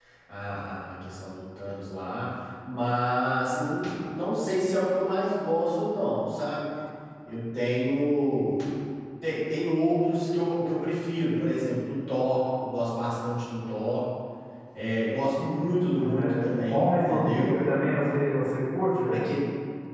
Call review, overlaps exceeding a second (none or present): present